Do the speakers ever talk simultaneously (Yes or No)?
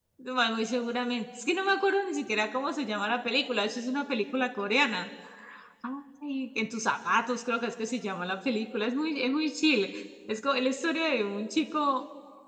No